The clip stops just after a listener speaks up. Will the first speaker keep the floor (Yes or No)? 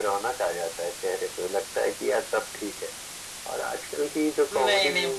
No